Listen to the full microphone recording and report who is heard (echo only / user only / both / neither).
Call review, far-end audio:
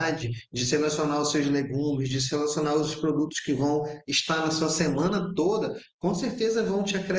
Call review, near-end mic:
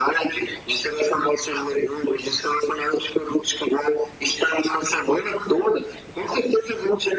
echo only